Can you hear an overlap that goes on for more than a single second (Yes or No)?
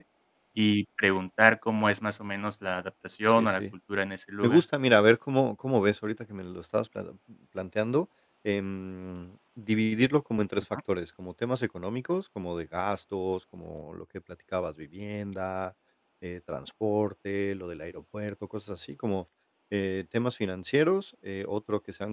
No